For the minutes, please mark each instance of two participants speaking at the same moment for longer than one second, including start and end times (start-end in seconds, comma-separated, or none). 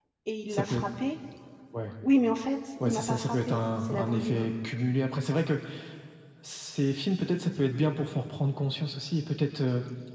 2.8-4.4